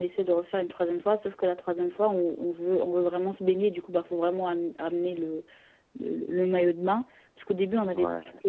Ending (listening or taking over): listening